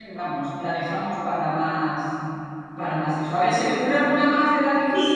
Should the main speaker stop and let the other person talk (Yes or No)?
Yes